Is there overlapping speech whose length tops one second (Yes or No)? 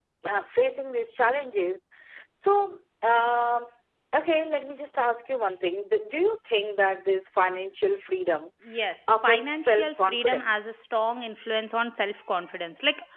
Yes